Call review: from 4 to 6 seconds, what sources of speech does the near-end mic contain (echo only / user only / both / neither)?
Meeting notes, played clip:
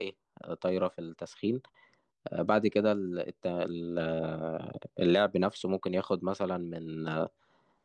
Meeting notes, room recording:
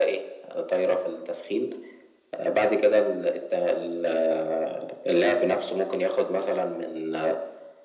echo only